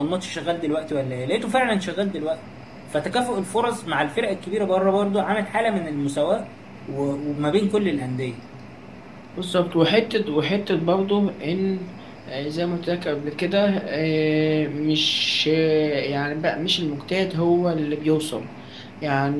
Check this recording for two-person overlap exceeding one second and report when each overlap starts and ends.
none

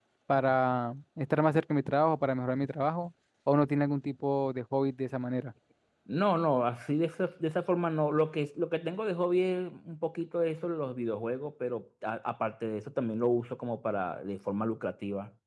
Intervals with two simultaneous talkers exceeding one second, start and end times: none

